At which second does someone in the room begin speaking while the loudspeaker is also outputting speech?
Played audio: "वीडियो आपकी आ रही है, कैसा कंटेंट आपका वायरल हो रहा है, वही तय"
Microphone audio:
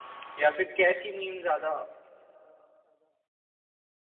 0.4 s

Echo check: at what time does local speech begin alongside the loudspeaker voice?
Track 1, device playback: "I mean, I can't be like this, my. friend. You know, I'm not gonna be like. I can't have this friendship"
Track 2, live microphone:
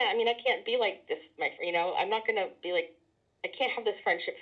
none

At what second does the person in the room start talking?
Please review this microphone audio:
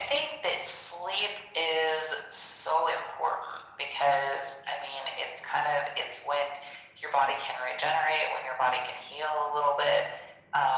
none

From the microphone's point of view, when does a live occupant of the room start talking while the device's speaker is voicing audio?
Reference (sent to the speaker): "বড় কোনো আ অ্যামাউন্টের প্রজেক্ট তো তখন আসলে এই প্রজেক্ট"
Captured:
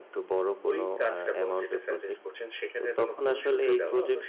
0.7 s

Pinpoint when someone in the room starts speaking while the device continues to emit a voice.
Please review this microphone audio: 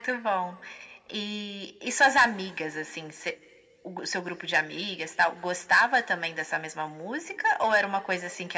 none

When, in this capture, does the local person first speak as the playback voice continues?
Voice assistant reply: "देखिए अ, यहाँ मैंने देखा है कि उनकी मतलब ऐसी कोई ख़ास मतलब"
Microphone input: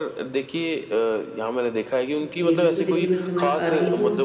2.2 s

